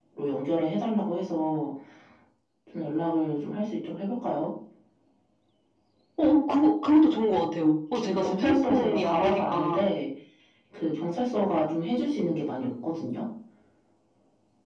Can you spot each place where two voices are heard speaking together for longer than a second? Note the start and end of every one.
8.0-9.8

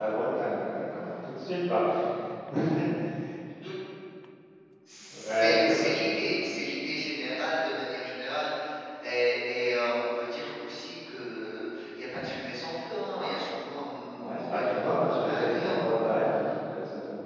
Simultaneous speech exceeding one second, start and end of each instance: 5.1-6.3, 14.1-15.7

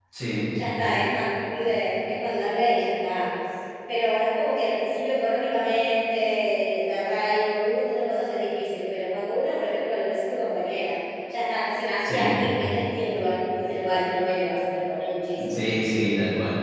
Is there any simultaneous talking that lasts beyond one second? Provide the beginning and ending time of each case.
none

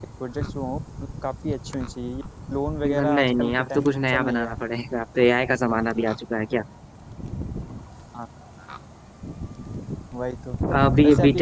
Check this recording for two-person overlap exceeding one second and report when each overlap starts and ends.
2.8-4.6

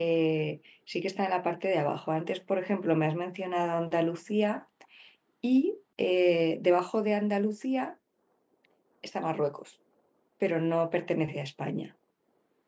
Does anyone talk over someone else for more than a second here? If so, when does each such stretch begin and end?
none

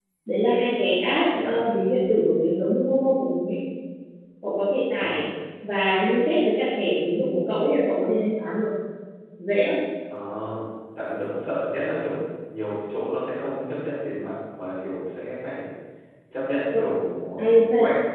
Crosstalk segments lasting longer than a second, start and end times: none

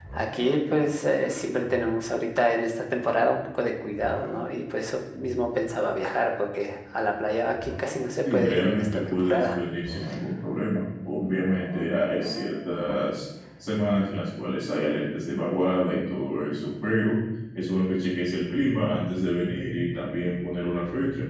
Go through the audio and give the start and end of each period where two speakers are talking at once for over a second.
8.3-9.6

